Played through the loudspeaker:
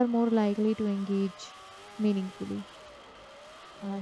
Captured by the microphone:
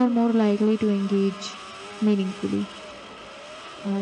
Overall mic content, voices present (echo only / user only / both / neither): echo only